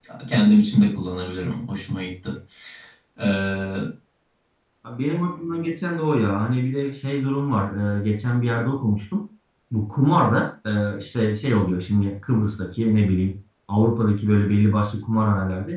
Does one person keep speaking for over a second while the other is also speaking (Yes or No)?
No